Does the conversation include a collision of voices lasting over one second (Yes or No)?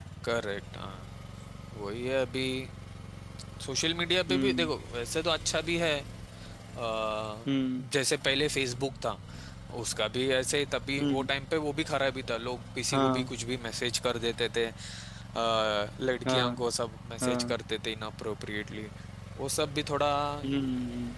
No